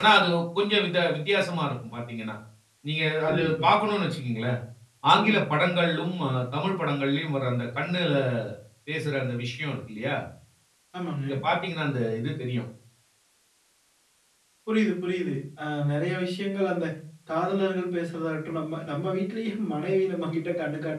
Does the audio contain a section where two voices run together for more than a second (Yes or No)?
No